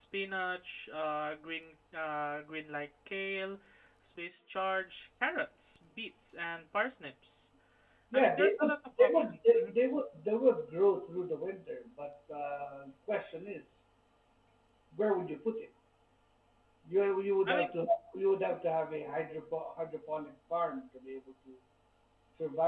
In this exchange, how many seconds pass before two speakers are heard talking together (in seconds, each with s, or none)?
8.1 s